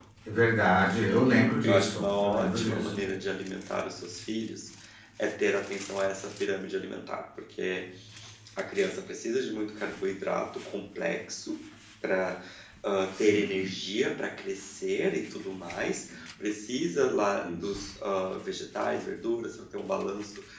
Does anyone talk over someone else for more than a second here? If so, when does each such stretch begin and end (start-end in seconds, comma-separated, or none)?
1.0-3.0